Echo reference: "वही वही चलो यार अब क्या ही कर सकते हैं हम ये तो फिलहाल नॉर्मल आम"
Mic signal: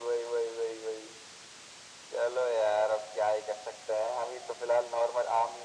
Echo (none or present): present